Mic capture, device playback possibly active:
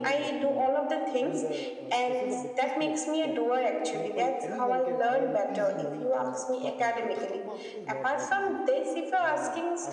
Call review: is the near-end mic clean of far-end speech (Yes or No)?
No